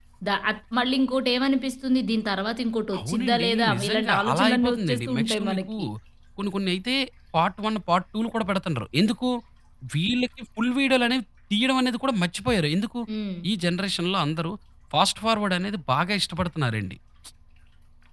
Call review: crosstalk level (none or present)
present